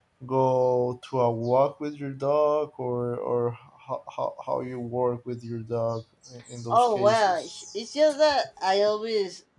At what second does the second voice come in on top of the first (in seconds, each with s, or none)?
6.7 s